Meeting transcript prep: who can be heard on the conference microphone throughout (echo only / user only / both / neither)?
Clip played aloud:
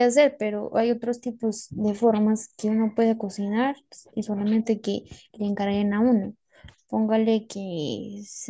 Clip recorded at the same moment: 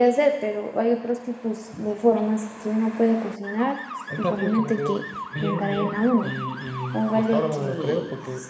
both